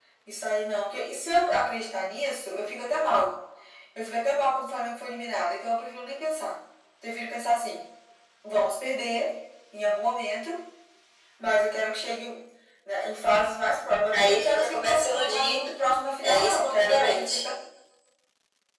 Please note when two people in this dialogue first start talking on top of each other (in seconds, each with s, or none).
14.1 s